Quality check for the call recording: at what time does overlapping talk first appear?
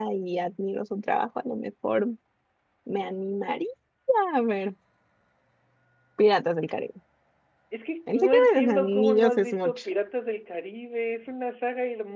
8 s

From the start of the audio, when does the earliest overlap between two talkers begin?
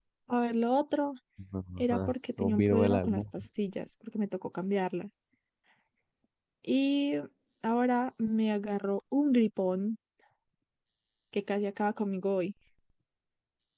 2 s

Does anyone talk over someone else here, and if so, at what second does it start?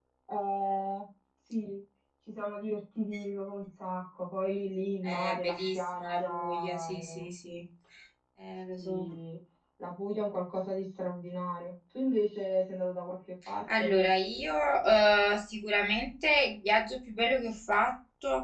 5 s

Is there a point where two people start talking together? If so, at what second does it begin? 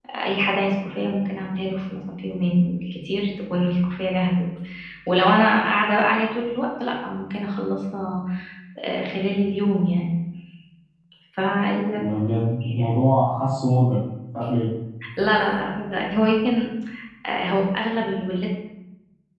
none

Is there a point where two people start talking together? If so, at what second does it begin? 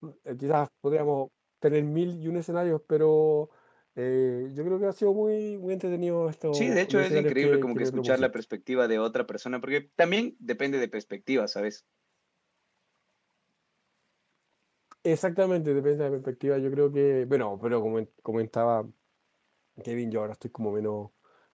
7 s

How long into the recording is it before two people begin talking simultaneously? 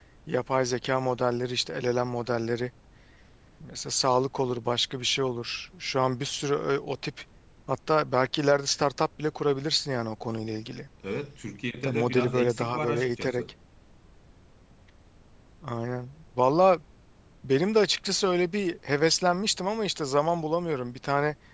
12 s

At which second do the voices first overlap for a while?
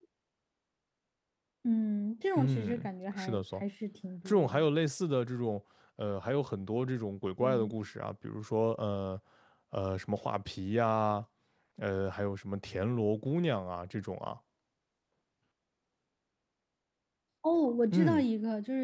2 s

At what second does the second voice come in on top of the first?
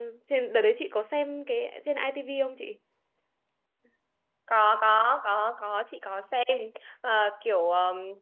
none

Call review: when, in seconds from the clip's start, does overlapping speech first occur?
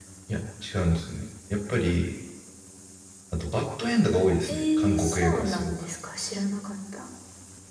4 s

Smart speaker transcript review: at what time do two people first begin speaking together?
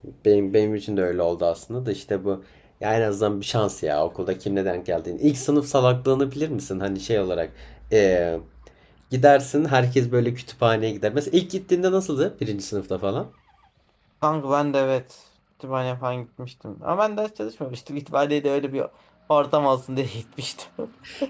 none

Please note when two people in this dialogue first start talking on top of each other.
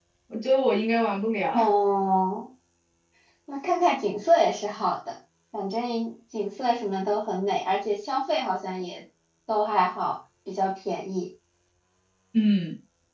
none

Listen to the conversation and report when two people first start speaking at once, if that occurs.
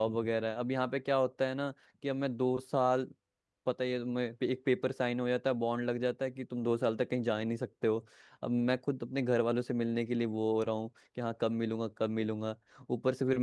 none

